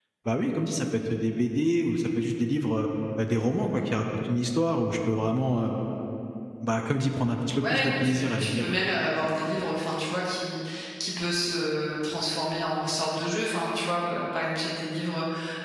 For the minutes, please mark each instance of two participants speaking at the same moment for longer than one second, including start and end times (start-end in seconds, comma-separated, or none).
7.6-8.8